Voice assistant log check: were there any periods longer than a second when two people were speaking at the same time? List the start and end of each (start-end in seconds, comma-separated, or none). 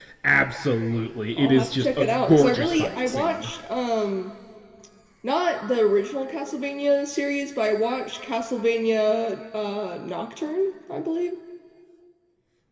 1.4-3.5